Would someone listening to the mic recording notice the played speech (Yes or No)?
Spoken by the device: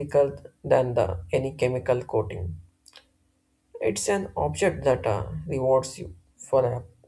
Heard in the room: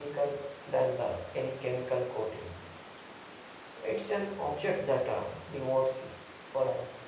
Yes